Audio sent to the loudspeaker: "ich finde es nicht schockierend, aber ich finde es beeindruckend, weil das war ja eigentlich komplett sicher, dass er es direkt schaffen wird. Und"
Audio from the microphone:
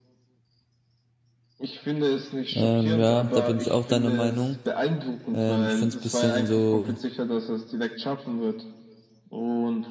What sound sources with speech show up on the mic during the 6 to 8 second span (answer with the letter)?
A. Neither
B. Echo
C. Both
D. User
C